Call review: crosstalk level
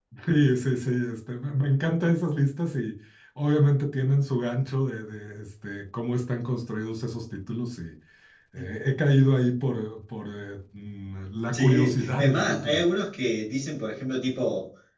present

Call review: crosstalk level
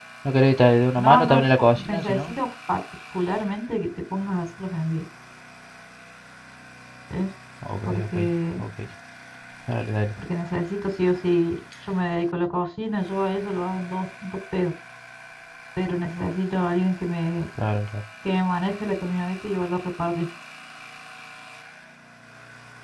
present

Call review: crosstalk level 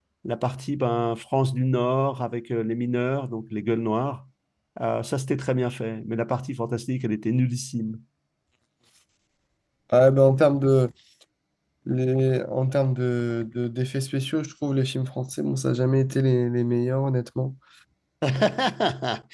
none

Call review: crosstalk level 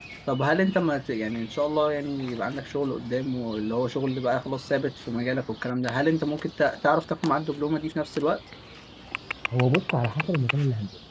none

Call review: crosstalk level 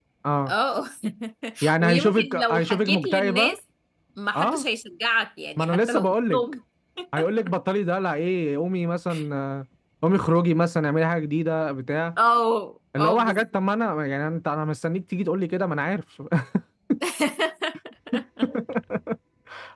present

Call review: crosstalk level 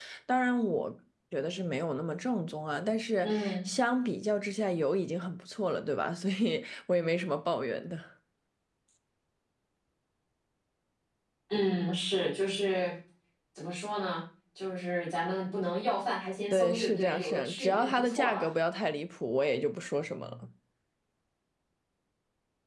present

